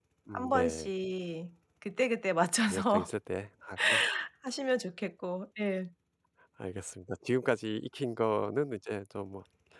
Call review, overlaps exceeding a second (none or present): none